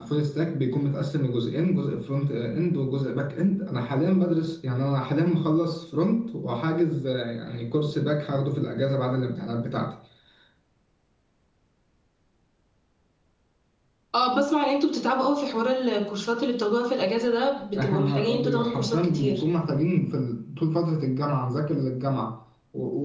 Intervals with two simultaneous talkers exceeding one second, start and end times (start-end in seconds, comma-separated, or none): 17.8-19.4